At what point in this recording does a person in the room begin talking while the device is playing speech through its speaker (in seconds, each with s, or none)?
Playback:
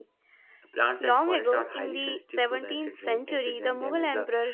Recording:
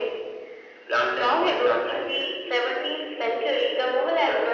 none